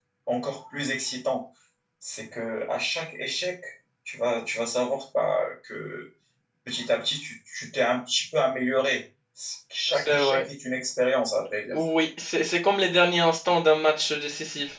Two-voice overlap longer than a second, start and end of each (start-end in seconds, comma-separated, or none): none